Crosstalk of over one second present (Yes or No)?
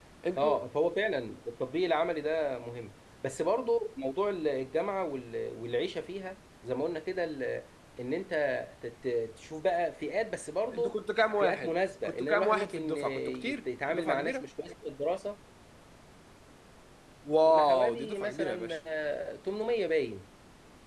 Yes